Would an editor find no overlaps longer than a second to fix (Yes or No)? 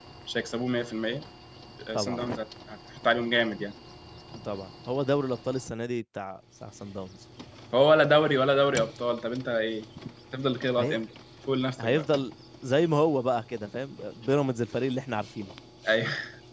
Yes